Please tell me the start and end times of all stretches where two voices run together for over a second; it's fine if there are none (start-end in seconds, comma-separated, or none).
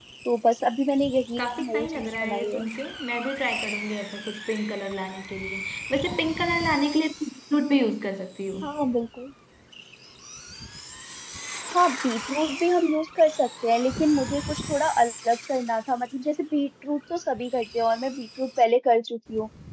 1.4-2.6